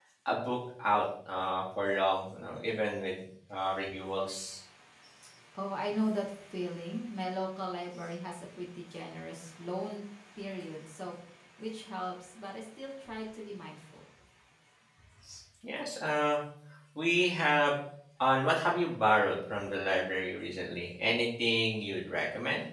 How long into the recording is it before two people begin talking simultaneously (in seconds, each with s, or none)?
none